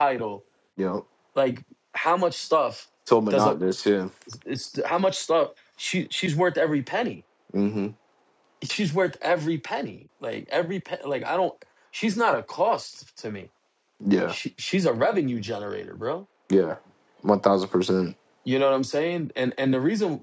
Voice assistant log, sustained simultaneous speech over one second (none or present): none